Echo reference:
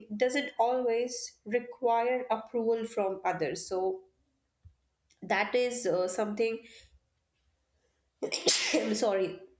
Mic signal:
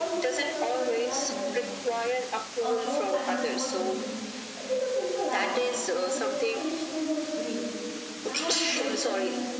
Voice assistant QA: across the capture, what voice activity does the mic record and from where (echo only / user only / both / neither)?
both